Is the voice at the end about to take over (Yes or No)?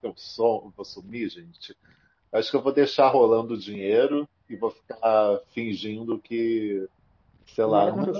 No